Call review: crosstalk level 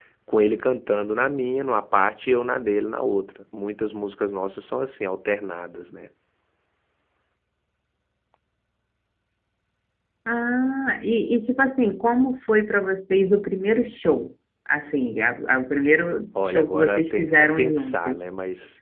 present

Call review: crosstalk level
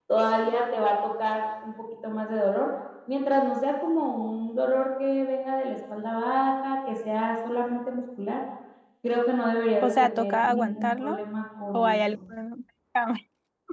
present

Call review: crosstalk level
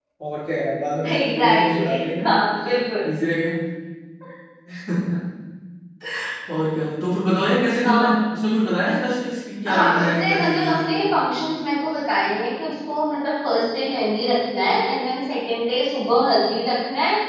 present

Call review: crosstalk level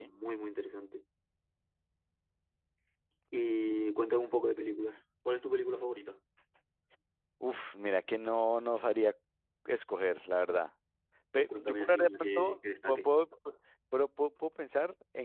present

